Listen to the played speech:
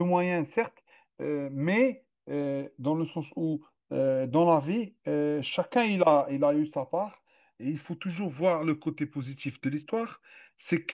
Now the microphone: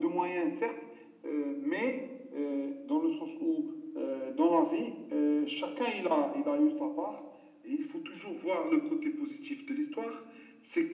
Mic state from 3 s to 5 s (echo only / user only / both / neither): echo only